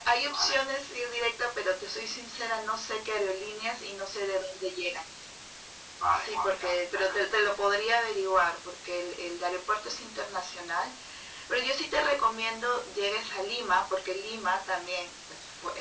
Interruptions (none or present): present